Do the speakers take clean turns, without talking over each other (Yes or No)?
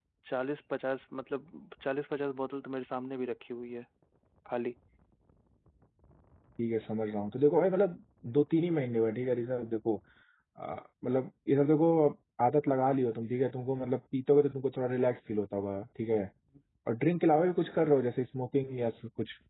Yes